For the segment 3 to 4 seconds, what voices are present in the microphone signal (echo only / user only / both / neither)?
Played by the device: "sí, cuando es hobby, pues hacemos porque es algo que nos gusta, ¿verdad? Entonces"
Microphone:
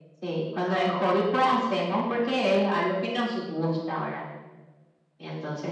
echo only